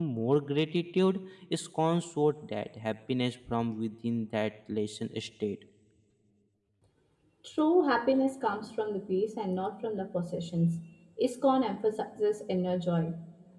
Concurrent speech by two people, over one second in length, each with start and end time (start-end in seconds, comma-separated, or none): none